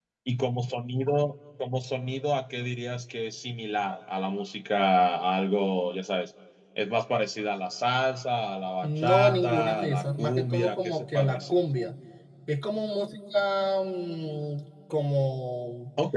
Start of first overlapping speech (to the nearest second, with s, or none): 9 s